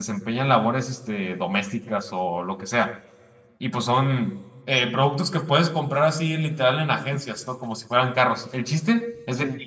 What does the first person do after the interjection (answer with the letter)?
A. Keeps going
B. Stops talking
A